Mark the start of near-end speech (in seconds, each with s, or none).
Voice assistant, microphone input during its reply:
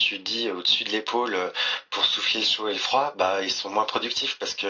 none